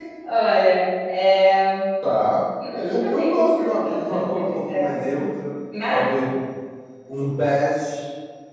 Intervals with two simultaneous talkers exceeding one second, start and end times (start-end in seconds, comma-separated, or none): 2.7-5.3